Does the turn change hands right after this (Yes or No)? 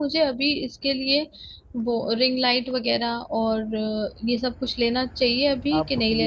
Yes